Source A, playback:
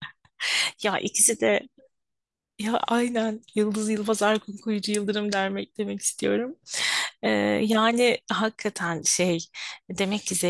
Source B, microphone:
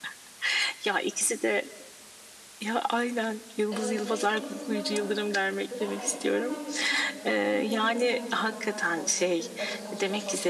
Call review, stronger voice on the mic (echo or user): echo